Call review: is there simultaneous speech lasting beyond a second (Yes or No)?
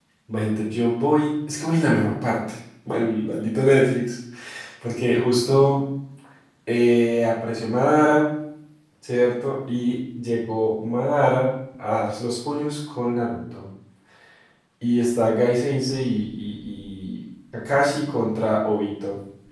No